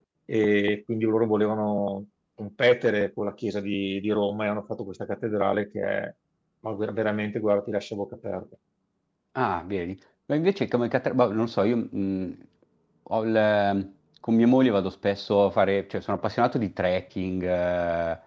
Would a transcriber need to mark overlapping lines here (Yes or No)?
No